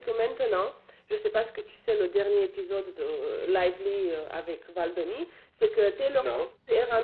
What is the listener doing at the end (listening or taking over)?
listening